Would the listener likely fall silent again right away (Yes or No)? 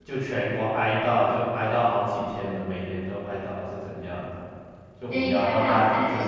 No